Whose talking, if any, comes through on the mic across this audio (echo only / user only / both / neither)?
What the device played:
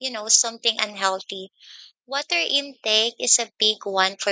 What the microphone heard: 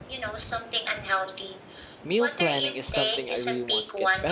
both